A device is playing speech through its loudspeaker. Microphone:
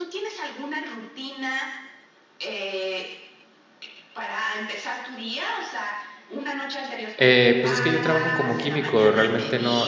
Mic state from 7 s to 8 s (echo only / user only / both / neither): both